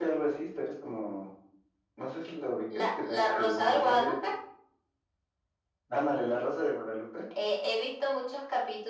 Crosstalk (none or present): present